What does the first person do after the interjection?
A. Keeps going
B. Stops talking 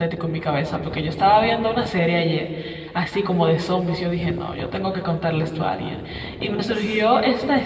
A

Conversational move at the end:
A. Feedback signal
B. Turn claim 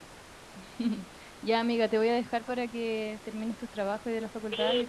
B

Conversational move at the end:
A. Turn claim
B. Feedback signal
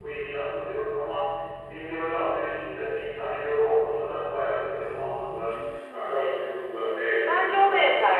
A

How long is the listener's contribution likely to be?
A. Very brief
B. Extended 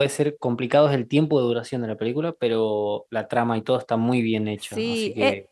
B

